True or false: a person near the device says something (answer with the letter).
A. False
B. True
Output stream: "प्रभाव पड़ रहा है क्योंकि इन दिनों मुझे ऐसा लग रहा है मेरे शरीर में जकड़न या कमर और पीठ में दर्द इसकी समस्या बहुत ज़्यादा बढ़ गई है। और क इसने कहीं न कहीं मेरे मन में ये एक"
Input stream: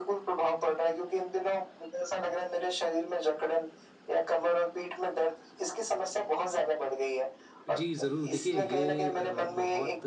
B